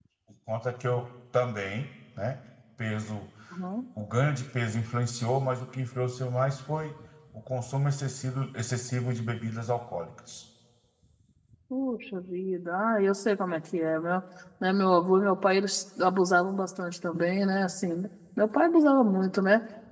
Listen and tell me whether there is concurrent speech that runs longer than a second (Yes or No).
No